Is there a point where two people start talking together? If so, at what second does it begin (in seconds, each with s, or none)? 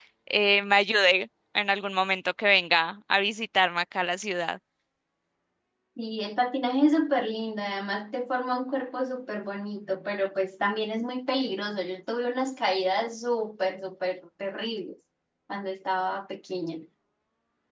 none